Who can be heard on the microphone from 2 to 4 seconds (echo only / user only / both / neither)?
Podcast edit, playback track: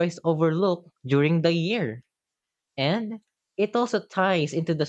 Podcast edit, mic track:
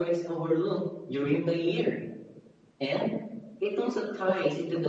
echo only